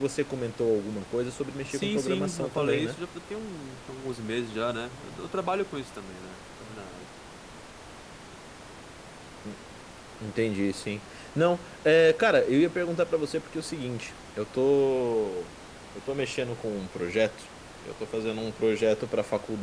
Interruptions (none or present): present